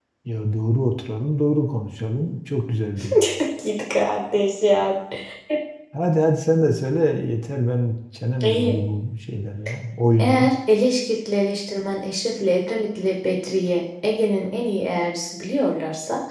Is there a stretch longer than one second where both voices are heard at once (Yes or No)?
No